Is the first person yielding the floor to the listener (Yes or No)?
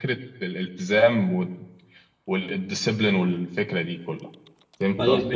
Yes